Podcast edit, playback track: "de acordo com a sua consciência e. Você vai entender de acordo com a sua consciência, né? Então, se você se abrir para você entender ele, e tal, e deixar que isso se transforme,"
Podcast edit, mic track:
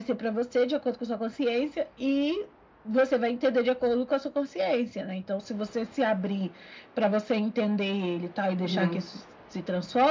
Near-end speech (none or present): present